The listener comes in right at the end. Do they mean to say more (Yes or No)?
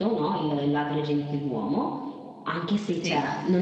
No